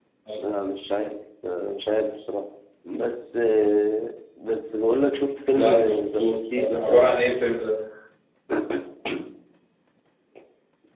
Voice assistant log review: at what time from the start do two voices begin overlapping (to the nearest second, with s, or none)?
6 s